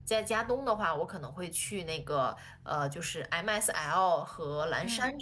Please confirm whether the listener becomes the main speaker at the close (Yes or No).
No